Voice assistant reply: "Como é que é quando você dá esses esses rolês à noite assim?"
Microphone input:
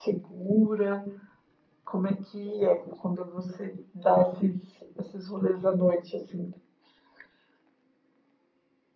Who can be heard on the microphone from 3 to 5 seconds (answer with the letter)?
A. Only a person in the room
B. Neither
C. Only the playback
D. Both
C